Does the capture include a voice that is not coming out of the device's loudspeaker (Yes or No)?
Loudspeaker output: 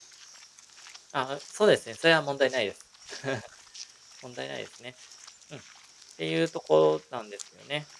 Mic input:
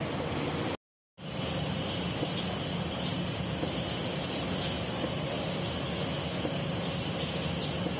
No